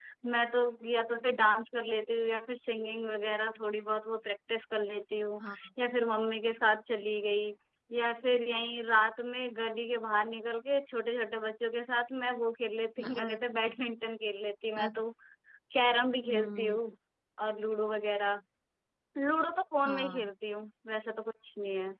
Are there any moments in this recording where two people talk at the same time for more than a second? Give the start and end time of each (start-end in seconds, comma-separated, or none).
none